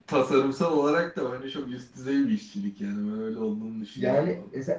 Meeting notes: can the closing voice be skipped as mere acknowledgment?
No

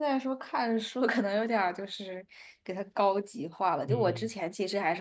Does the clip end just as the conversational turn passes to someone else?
No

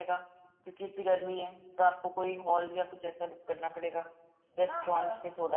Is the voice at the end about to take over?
Yes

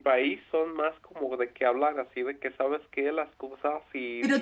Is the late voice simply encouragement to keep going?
No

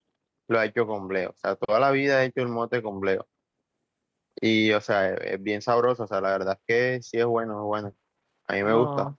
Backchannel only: Yes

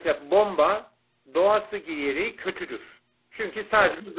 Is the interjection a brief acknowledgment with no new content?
Yes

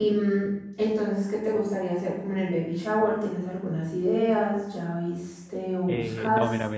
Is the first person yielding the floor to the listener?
Yes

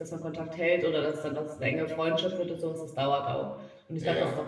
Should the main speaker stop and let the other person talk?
No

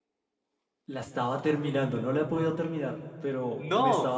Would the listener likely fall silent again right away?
Yes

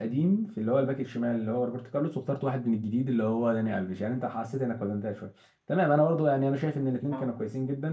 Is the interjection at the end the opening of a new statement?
No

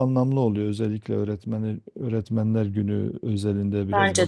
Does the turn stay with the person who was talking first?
Yes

